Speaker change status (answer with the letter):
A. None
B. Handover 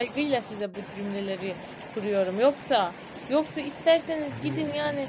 A